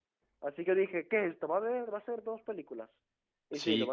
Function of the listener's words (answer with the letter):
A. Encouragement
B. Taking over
B